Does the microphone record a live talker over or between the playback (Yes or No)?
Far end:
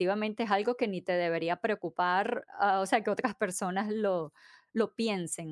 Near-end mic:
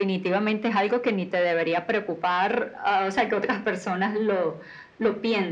No